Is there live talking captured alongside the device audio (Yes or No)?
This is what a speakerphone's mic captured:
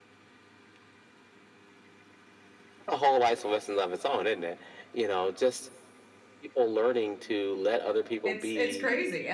Yes